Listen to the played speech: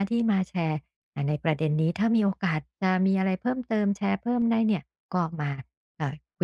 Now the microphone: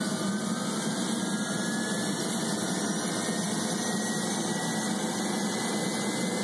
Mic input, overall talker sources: neither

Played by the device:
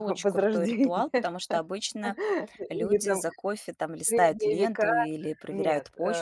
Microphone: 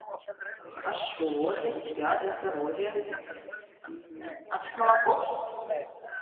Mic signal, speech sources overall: both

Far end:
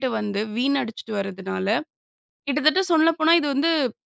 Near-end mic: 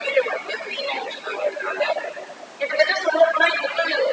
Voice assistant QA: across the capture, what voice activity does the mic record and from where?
echo only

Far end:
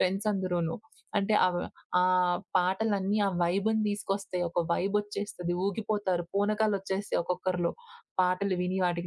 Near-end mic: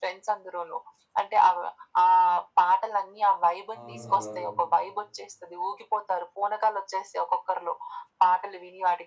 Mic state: both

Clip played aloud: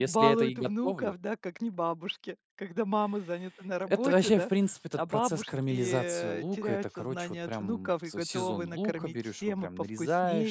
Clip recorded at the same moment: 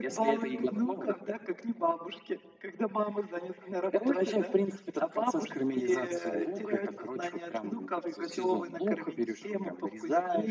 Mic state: echo only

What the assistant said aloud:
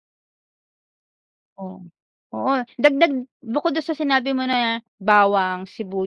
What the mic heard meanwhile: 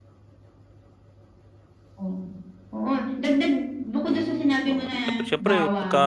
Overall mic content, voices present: both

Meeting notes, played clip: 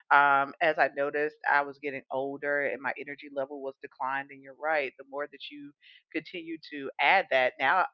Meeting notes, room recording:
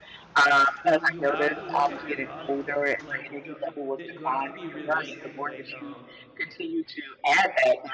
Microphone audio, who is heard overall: both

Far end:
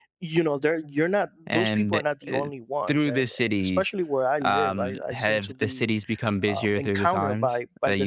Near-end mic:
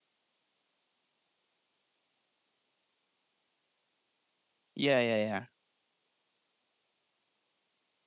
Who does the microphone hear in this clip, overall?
user only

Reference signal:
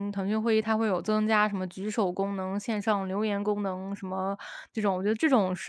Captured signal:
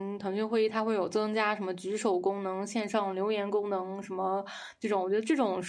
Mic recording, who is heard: echo only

